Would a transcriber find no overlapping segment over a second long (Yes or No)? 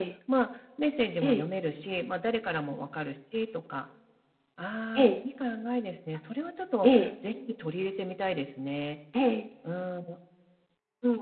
Yes